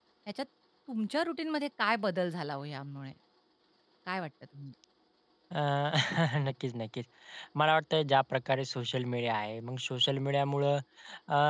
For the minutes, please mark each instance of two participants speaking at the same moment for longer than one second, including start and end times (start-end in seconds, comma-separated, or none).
none